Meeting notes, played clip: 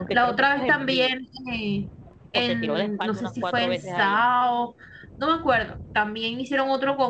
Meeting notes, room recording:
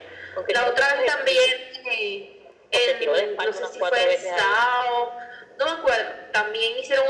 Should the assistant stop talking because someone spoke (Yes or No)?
No